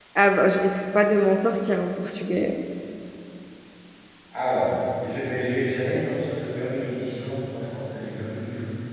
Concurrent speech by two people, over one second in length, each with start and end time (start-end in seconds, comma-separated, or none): none